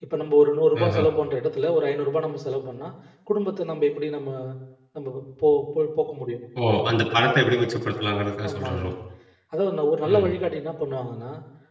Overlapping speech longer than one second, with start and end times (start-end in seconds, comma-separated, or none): none